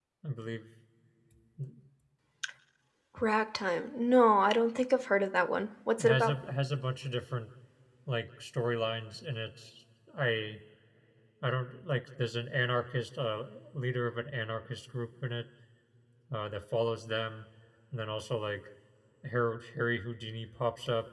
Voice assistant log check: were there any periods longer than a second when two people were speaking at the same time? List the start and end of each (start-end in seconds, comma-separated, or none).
none